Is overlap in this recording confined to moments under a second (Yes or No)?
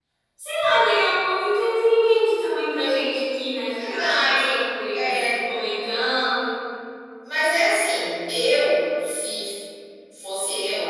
No